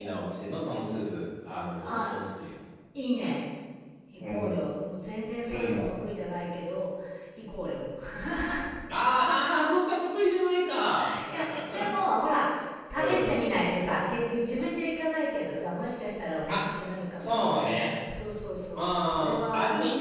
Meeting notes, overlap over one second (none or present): present